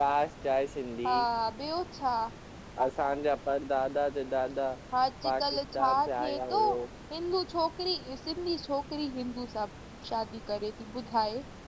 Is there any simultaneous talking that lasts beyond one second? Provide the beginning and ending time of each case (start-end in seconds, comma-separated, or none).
5.2-6.6